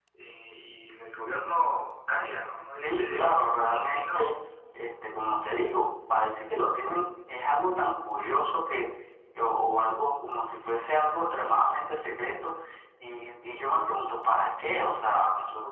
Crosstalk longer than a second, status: present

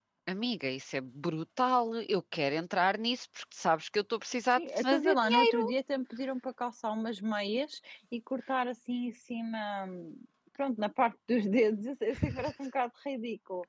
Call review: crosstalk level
present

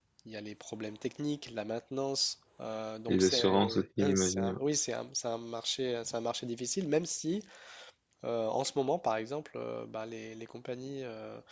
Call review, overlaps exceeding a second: present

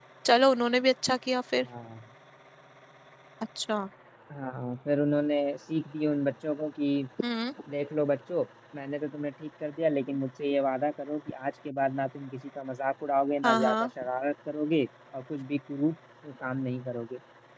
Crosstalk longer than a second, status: none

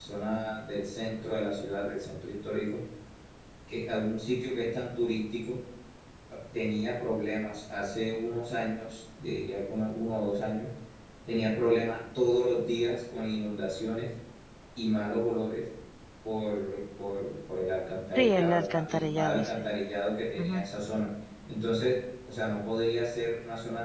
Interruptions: present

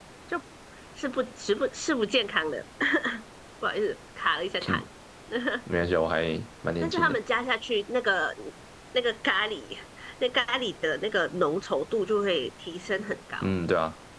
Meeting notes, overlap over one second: none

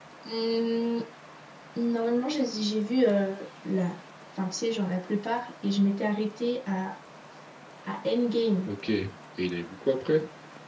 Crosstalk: none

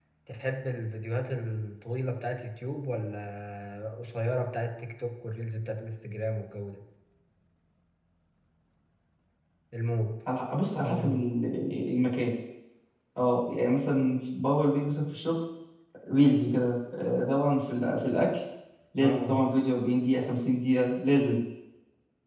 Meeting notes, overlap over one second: none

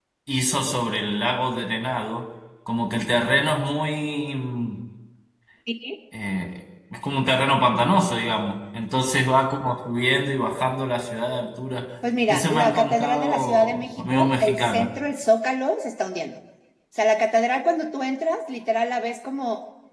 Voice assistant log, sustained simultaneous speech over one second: present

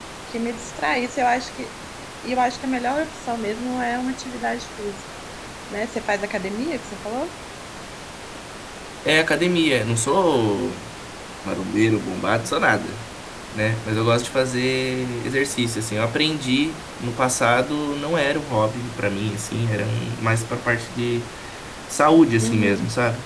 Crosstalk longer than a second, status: none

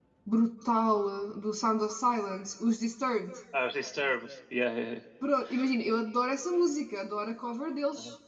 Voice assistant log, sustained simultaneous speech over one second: none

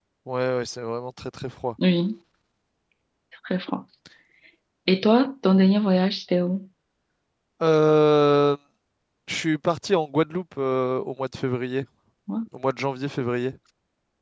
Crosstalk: none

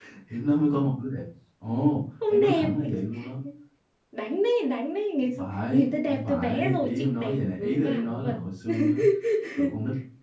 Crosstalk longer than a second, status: present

